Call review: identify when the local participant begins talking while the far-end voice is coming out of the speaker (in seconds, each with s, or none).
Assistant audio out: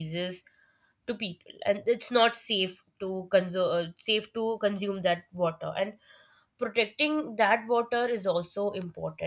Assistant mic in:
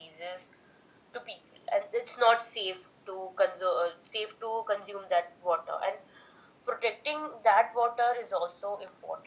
none